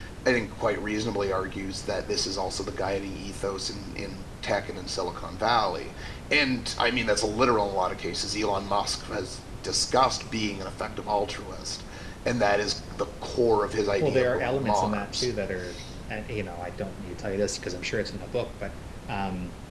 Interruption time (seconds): 14.0 s

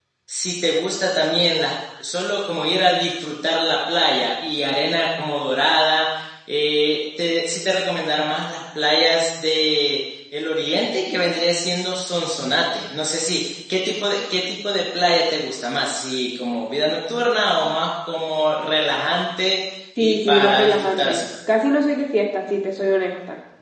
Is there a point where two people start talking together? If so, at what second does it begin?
20.0 s

